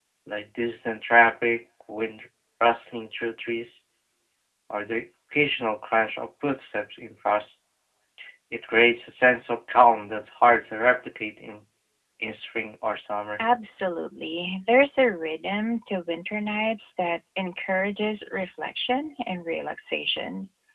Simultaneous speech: No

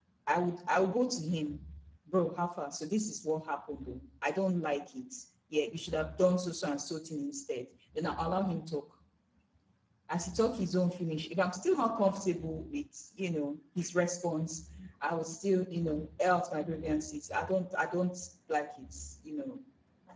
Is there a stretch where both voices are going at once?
No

